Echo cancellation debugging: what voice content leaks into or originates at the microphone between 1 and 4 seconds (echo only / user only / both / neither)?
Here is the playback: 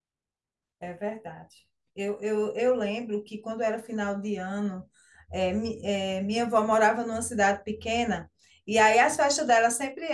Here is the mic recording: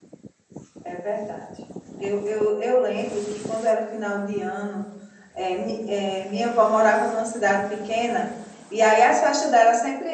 echo only